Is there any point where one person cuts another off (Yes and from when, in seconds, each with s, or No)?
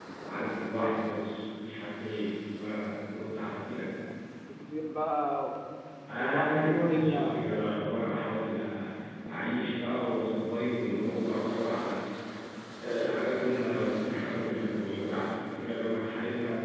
Yes, from 6.2 s